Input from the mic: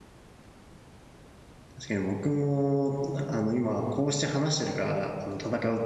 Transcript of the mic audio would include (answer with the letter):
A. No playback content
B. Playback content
A